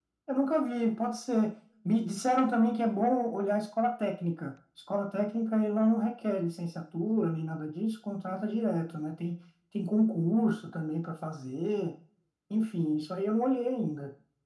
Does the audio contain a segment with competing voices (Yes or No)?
No